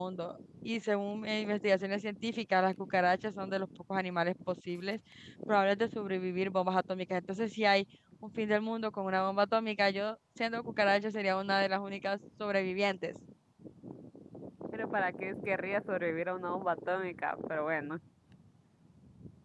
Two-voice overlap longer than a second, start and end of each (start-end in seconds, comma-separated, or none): none